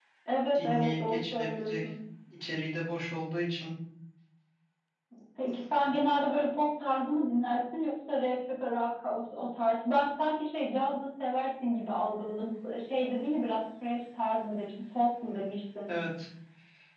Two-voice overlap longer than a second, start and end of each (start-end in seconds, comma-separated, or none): 0.5-1.9